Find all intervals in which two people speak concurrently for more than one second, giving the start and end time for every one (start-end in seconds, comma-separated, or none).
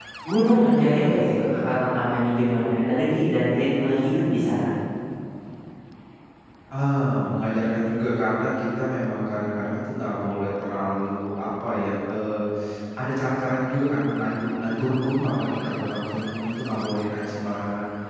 none